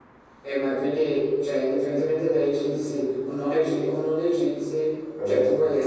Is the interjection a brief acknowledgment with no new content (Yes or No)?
Yes